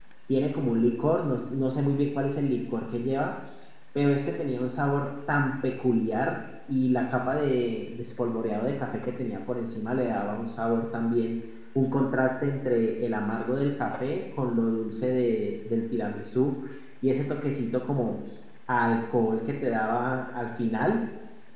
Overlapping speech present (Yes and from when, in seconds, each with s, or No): No